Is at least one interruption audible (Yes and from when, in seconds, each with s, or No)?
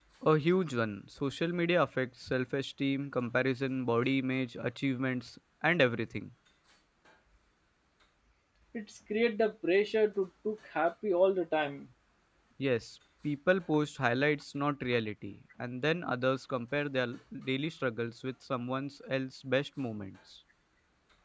No